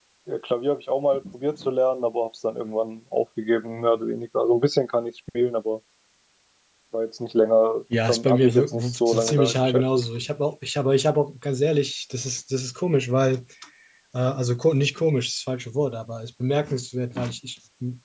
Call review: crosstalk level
present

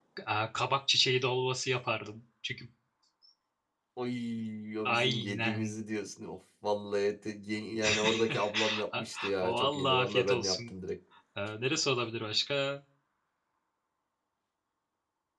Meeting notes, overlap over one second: present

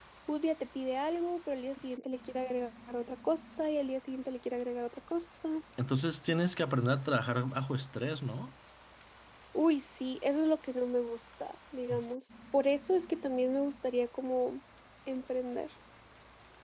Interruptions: none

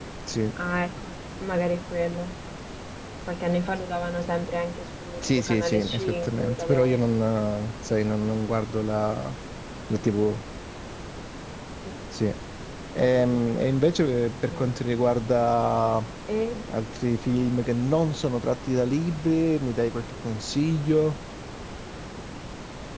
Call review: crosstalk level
present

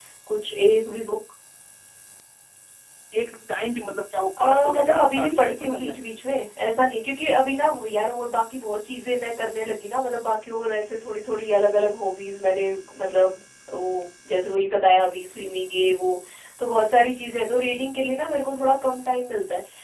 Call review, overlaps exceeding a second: present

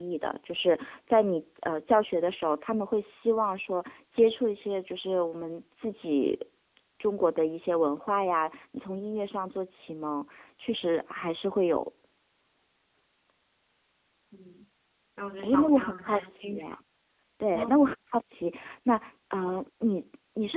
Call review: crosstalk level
present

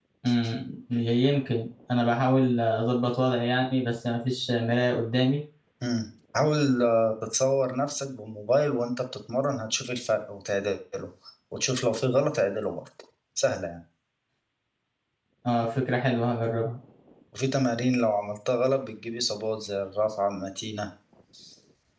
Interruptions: none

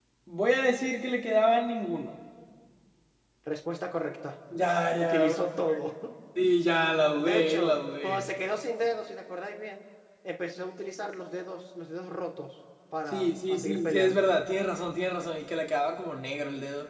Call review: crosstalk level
present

